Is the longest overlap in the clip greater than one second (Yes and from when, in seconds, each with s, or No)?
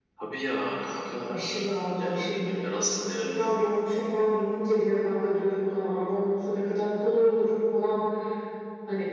No